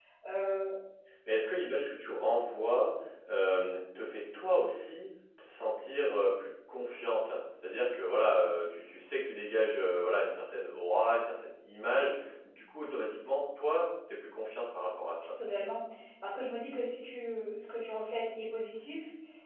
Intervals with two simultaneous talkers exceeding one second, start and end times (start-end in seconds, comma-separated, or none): none